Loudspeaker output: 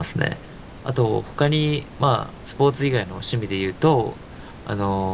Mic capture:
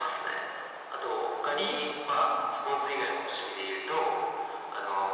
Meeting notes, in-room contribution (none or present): present